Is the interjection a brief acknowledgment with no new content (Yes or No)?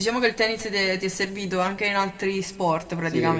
No